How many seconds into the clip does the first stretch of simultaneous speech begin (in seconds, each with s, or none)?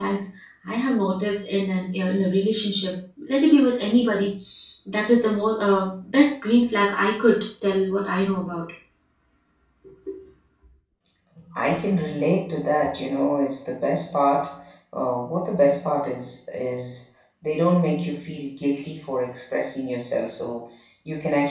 none